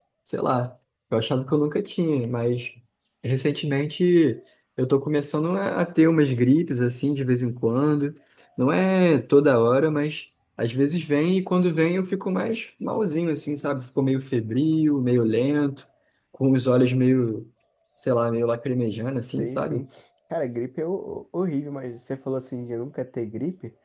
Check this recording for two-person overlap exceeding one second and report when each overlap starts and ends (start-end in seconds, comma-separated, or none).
none